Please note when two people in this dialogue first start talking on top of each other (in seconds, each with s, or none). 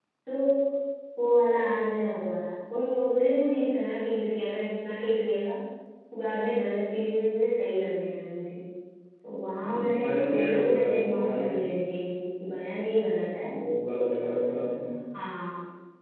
9.6 s